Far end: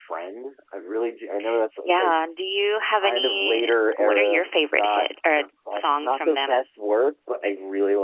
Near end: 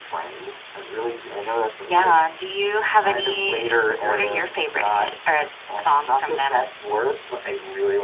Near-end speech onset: none

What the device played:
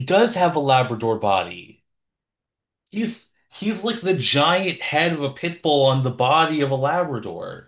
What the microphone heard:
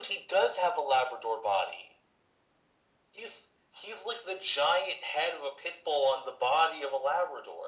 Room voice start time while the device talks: none

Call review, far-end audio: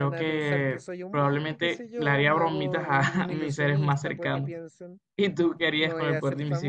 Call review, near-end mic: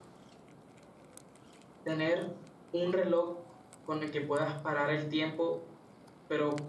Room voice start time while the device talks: 2 s

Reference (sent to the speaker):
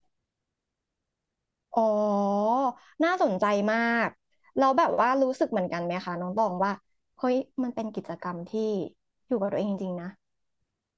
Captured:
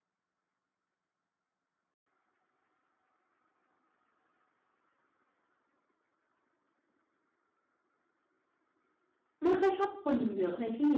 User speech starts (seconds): 9 s

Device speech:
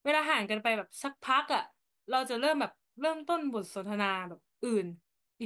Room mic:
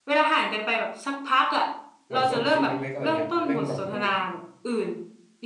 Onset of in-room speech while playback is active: 2 s

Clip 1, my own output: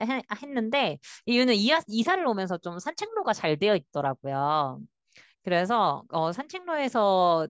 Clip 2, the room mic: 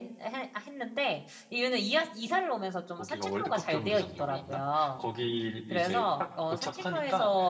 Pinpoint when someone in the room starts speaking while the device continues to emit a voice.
3 s

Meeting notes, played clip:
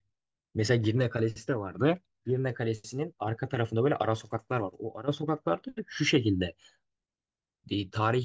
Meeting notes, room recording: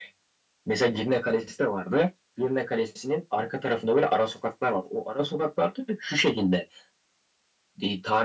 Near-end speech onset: none

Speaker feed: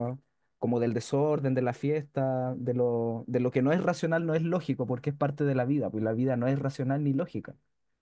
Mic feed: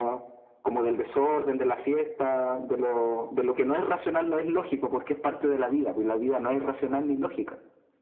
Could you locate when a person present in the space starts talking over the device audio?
none

